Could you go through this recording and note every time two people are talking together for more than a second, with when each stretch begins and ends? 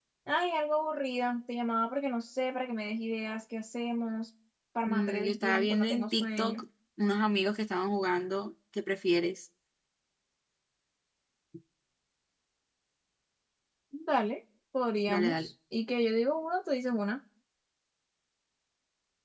4.9-6.6

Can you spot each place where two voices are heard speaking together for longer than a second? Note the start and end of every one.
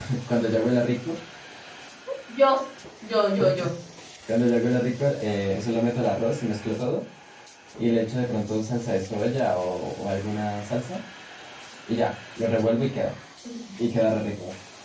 none

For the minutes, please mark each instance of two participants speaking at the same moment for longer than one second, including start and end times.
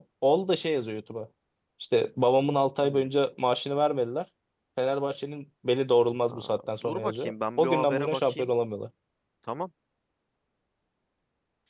6.3-8.5

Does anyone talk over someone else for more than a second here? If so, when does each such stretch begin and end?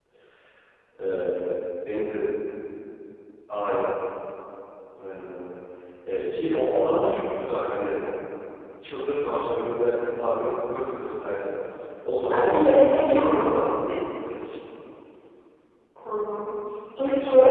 12.1-13.6

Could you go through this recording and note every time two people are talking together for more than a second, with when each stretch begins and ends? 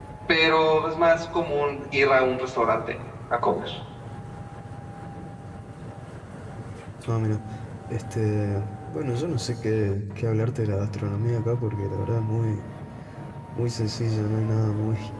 none

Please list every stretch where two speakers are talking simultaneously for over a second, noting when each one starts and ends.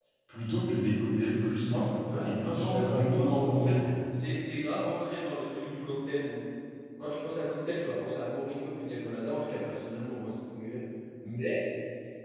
2.2-3.8

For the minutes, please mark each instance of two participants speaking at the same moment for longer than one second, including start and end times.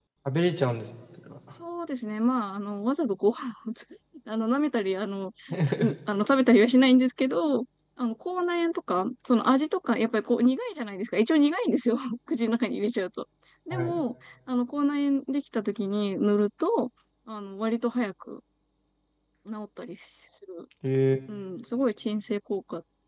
none

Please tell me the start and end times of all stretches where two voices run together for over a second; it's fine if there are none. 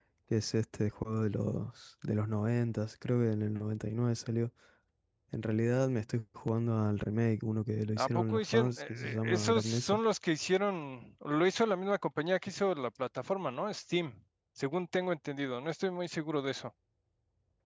8.0-10.0

